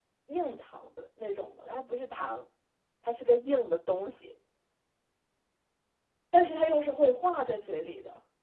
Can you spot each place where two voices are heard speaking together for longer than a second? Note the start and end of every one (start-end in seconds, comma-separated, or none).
none